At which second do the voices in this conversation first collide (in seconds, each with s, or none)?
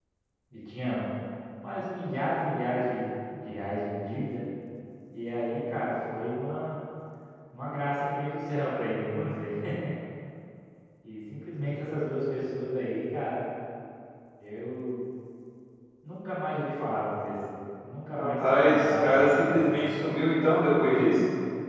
18.1 s